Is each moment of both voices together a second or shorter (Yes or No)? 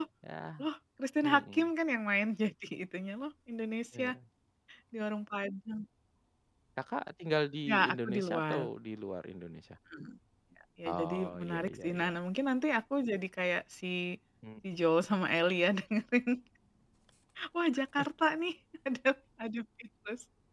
No